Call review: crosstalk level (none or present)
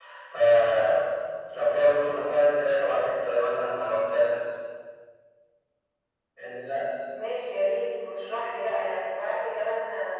none